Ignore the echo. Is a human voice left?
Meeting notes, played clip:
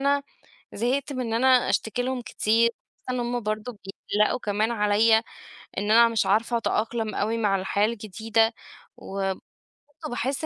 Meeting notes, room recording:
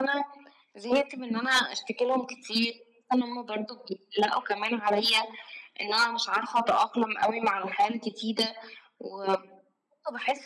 No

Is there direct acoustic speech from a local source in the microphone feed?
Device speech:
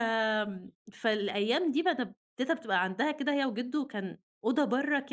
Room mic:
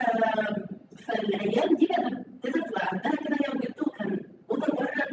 No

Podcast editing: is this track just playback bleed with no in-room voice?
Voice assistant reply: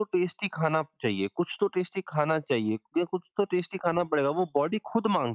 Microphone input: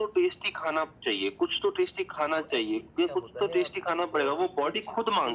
No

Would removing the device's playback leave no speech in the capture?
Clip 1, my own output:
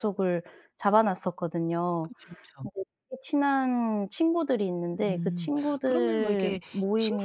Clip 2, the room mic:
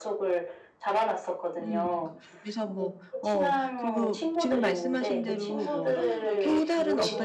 No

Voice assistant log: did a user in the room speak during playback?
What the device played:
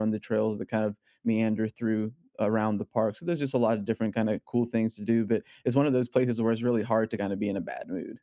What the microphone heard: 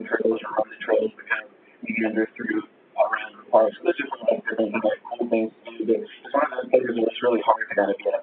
No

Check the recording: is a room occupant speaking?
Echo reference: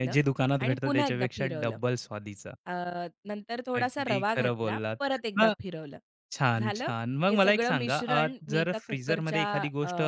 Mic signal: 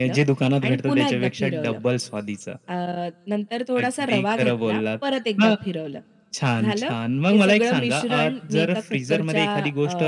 No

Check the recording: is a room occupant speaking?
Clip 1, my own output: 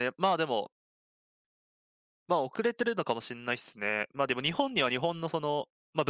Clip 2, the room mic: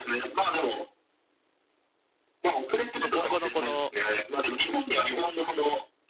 Yes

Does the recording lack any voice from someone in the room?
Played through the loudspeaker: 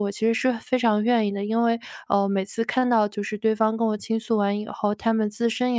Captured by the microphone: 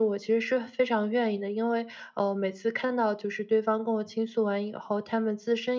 Yes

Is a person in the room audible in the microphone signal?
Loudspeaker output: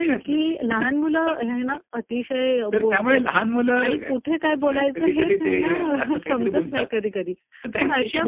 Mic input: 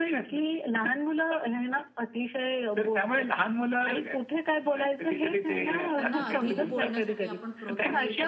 Yes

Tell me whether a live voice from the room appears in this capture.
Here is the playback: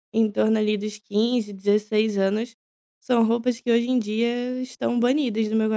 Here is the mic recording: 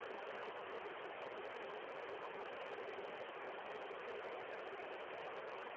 No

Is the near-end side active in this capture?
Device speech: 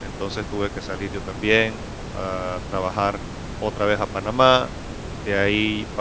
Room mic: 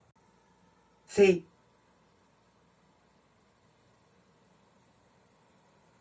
Yes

